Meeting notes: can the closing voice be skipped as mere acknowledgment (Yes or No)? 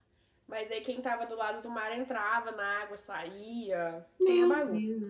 No